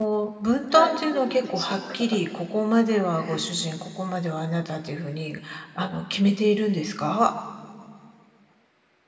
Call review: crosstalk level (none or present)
present